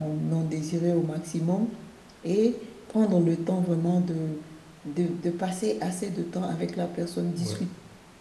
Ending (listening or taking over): listening